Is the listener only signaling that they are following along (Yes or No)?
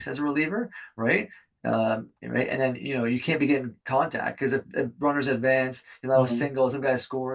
Yes